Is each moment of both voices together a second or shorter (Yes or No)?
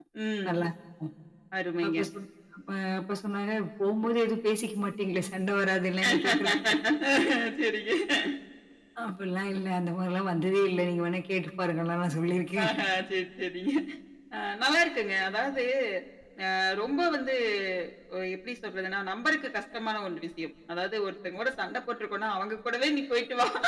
Yes